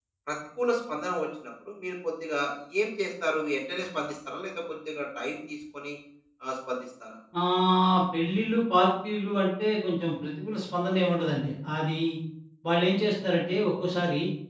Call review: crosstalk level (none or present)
none